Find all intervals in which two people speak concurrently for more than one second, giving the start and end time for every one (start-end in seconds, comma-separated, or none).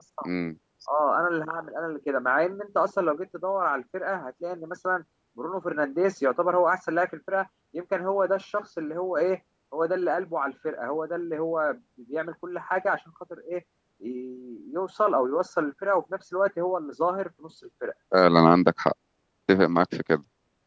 none